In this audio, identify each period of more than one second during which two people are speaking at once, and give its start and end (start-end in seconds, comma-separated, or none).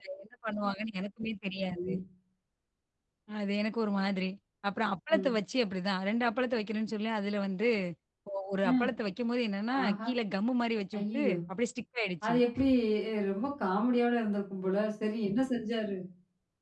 none